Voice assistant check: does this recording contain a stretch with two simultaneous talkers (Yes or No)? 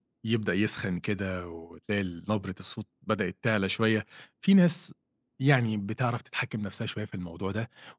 No